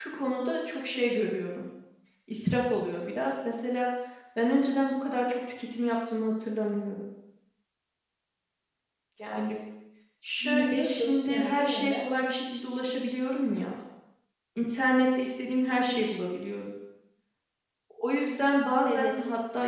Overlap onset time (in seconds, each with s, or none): 10.4 s